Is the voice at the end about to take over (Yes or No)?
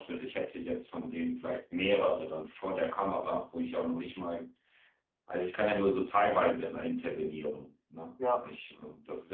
No